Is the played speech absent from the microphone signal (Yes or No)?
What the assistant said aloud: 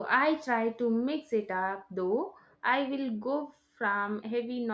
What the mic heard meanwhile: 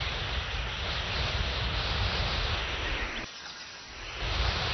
Yes